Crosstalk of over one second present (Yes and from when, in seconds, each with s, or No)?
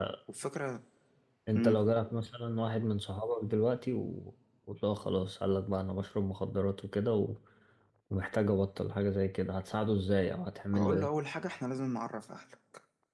No